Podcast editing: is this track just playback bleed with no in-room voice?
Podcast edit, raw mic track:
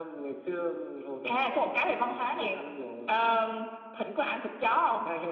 Yes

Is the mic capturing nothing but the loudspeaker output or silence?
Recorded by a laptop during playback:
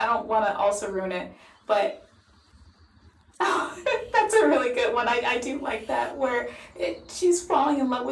Yes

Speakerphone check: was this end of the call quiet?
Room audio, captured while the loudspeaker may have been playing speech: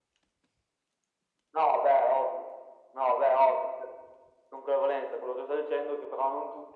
Yes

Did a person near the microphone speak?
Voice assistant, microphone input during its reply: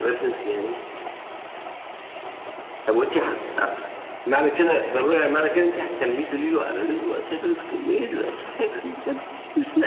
No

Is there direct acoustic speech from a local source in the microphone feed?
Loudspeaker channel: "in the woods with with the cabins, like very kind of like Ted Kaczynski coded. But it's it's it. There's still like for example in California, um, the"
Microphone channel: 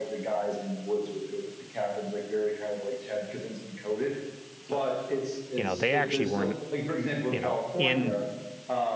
Yes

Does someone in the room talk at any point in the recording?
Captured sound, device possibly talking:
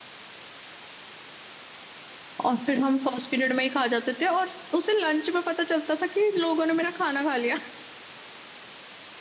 Yes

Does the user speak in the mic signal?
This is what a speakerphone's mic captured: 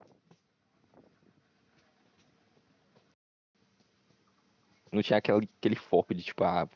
Yes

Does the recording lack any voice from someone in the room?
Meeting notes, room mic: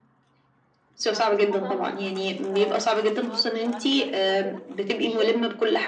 No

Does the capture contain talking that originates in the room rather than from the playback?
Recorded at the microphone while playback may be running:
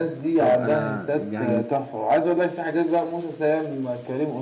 Yes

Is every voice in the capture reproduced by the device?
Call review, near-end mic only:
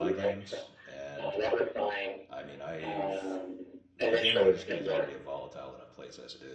No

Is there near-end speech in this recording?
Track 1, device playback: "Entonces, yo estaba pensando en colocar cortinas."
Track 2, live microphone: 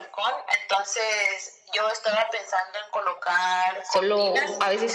Yes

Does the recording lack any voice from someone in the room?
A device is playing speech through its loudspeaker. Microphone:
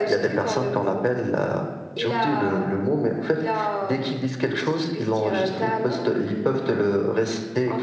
Yes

